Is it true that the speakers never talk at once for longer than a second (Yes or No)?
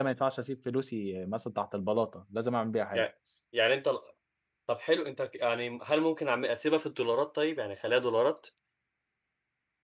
Yes